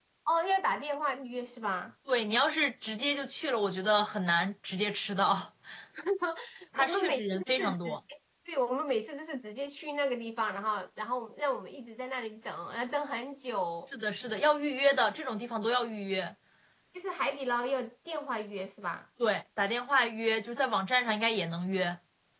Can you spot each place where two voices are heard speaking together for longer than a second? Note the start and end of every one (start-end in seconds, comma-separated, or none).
6.8-8.0